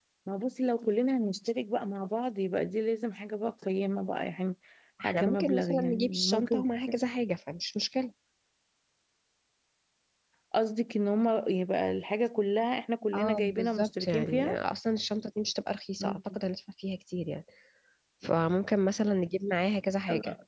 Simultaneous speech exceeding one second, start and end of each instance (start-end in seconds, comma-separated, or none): 5.0-6.6, 13.2-14.6